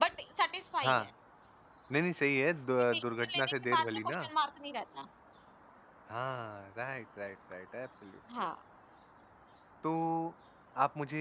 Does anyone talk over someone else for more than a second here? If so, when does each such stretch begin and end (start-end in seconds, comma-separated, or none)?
2.9-4.3